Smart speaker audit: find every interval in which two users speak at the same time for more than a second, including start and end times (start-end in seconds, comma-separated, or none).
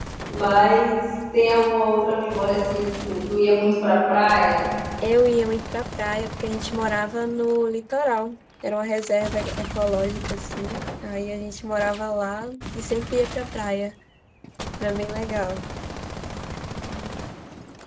none